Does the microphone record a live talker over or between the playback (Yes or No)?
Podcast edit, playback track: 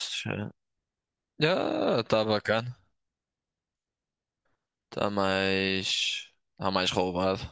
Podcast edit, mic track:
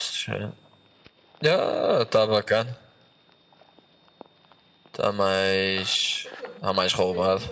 Yes